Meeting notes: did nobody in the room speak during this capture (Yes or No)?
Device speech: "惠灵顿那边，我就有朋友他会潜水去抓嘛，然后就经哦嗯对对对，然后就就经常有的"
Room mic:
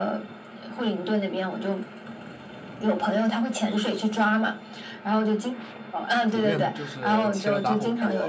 No